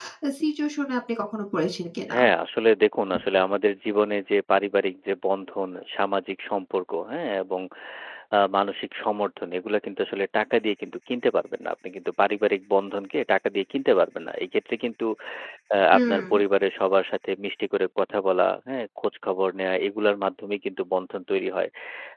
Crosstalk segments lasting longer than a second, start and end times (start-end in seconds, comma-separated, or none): none